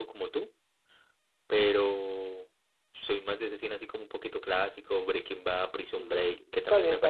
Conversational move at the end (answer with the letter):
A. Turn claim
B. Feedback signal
A